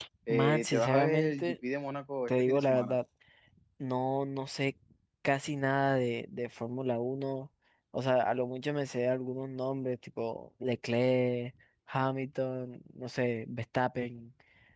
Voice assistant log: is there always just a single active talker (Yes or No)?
No